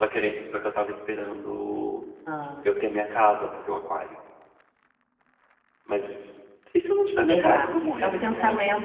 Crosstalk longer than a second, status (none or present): present